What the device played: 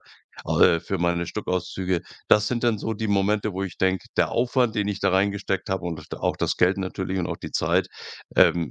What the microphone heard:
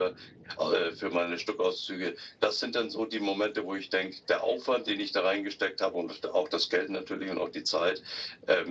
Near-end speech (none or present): none